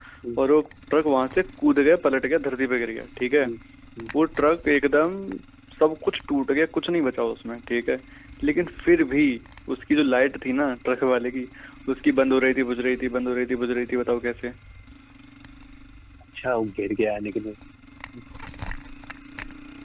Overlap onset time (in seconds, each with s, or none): none